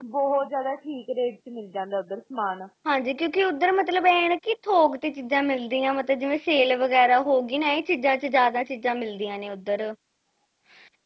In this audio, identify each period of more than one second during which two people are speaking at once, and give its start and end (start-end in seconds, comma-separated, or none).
none